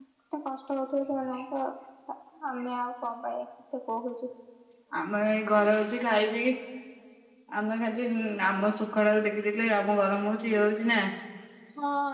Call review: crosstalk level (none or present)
none